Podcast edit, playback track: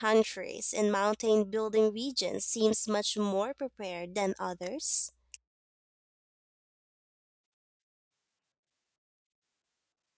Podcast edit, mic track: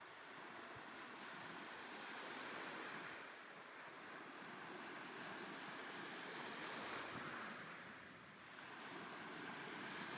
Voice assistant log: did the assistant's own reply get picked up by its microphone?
No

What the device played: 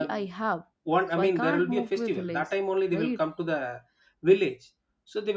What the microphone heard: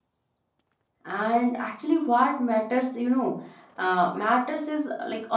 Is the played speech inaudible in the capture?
Yes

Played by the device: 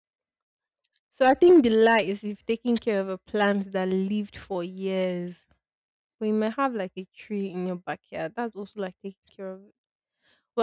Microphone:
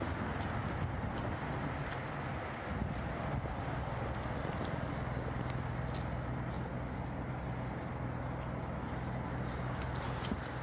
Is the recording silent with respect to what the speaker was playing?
Yes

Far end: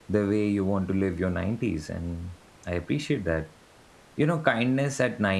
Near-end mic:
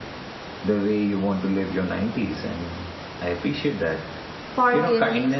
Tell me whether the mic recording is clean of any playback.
No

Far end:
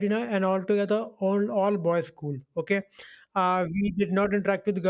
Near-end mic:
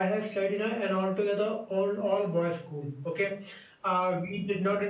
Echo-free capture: No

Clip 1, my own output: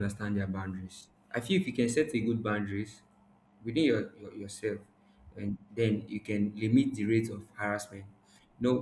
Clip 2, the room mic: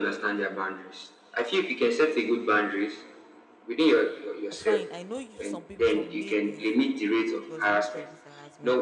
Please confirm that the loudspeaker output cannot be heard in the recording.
No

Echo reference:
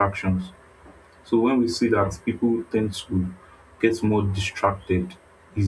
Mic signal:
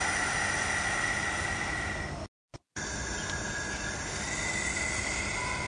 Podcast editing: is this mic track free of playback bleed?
Yes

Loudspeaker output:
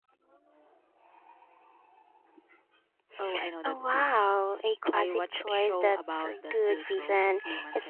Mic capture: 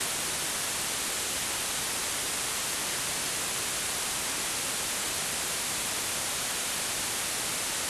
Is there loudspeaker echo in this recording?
No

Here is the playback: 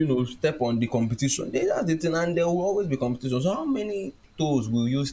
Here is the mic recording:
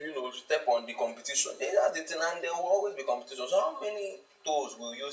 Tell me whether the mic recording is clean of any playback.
No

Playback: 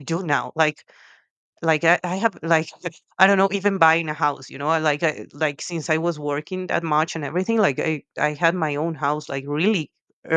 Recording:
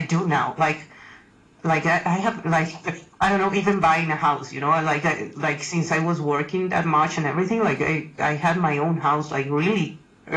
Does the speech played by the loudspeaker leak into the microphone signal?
Yes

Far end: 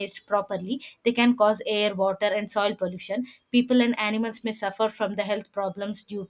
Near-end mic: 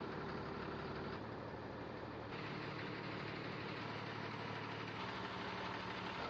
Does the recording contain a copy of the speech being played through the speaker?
No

